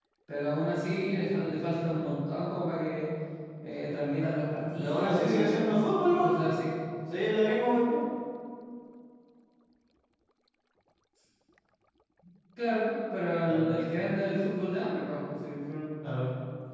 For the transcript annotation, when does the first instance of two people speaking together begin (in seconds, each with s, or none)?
4.8 s